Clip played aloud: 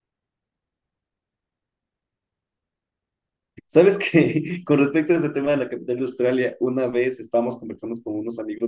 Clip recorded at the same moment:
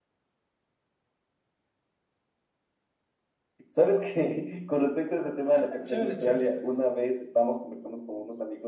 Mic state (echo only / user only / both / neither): both